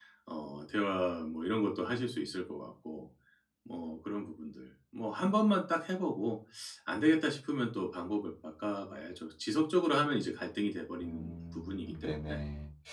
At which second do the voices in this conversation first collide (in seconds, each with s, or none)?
11.0 s